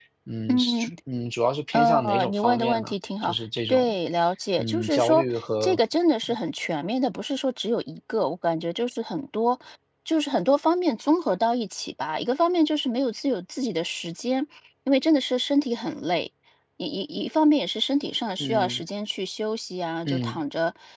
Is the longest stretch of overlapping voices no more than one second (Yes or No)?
No